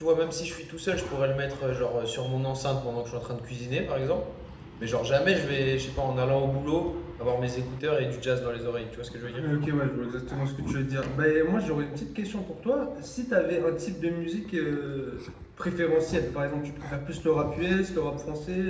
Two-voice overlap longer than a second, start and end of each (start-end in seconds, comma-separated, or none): none